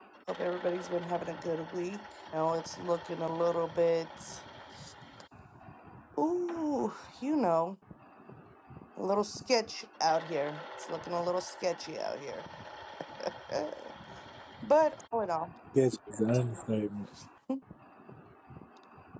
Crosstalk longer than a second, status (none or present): none